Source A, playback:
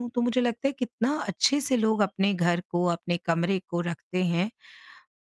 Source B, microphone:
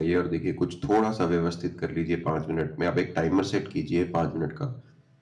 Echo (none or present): none